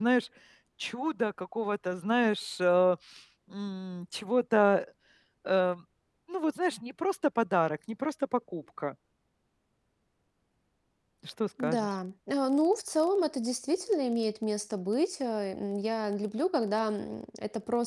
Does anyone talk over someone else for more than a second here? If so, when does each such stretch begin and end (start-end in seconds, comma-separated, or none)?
none